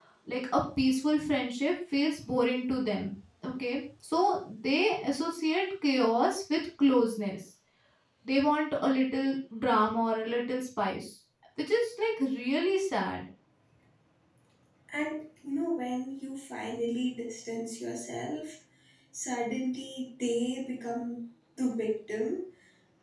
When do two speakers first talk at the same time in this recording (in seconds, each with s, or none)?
none